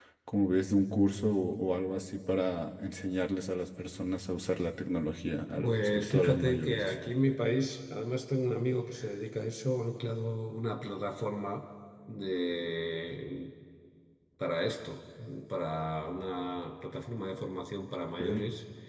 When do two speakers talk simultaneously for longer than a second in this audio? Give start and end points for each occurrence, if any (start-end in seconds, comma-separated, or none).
5.5-6.9